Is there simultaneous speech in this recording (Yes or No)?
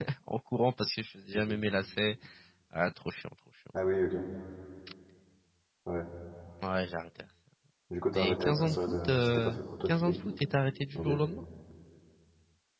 Yes